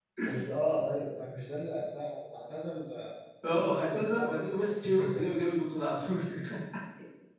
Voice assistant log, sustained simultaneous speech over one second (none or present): present